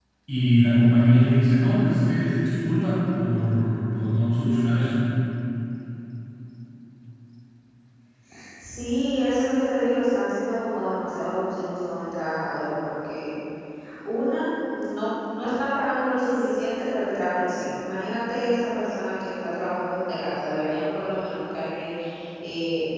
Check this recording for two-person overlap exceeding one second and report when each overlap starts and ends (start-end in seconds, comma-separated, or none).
none